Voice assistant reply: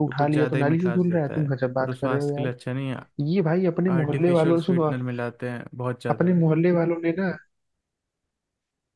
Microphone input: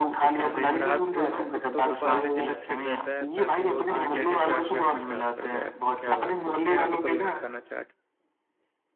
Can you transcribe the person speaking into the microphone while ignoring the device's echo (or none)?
रात को ना वो कुत्तों को पार्ले जी बिस्किट देता है ताकि वो उसकी प्लेटें चाट चाट के साफ कर दे यार तुम क्या बात करो उसके यहाँ तो कभी मत खाना चाट